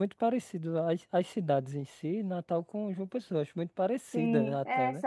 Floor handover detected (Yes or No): Yes